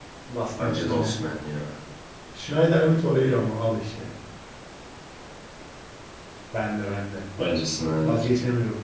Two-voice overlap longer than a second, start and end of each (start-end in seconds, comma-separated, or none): none